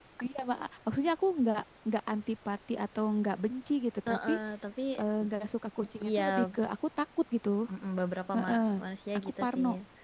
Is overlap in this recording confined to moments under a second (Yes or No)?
Yes